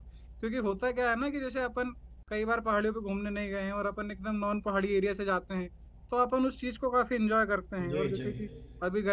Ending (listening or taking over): listening